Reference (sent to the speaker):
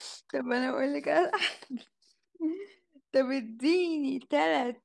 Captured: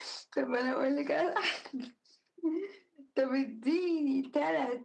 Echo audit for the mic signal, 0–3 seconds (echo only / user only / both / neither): echo only